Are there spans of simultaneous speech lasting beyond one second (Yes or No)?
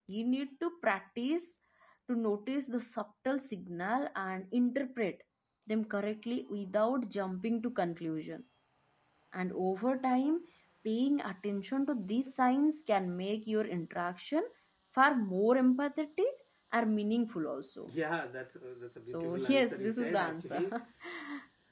Yes